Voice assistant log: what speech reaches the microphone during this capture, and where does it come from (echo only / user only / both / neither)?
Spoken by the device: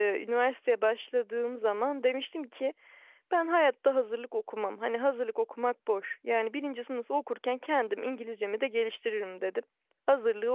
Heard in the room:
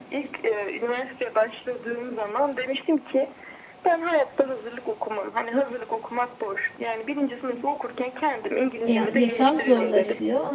both